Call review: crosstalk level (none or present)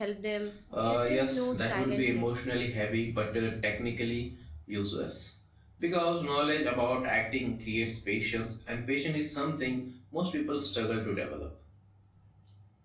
present